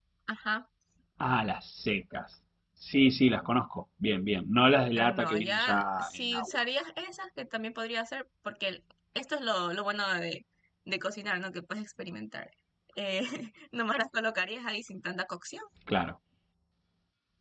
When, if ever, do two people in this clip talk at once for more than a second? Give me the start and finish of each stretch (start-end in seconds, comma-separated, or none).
5.0-6.6